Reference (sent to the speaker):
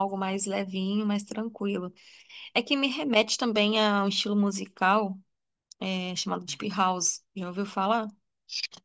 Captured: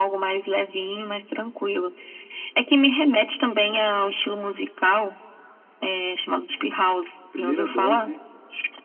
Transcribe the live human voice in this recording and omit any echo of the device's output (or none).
primeira dose,